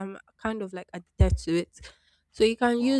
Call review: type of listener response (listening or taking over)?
listening